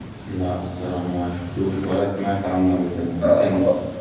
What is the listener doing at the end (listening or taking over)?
taking over